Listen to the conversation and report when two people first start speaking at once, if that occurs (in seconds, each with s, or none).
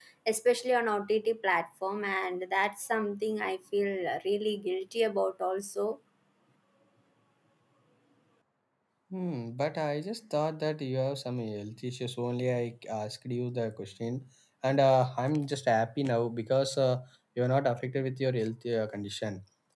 none